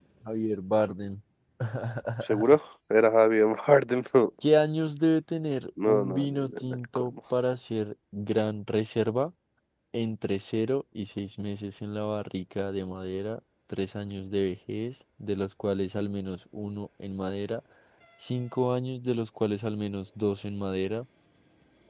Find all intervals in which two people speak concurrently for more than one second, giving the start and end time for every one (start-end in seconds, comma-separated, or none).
5.9-7.1